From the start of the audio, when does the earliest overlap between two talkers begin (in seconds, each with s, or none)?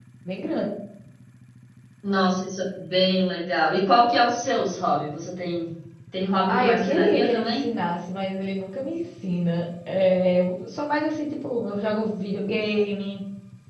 6.5 s